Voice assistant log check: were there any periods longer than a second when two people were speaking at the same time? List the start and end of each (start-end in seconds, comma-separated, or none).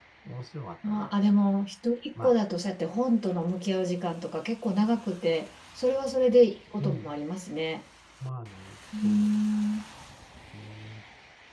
none